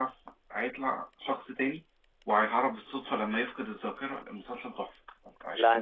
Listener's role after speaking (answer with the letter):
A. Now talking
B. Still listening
A